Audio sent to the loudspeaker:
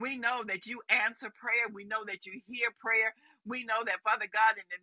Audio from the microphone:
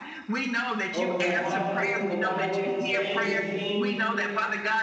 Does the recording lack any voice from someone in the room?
No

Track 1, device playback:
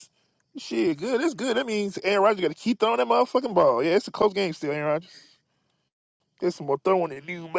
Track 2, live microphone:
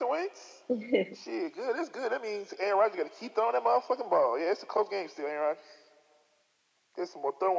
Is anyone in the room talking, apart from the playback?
Yes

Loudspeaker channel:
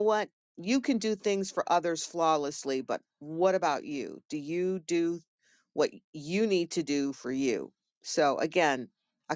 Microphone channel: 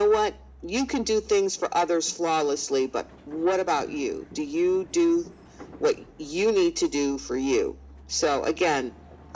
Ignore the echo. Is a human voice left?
No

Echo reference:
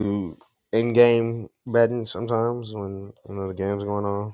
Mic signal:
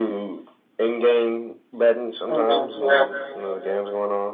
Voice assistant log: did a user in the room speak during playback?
Yes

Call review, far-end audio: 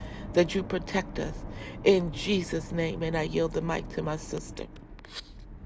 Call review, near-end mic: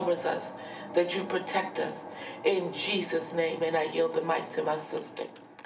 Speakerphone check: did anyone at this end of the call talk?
No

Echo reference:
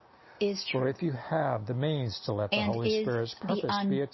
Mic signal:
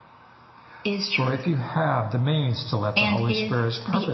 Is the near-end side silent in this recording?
Yes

